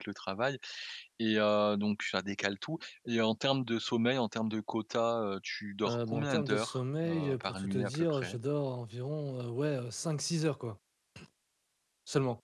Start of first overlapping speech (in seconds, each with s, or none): 5.8 s